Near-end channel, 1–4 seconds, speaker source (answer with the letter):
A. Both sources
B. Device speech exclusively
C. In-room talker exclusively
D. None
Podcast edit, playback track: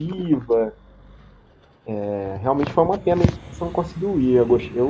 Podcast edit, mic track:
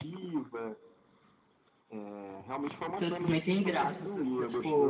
A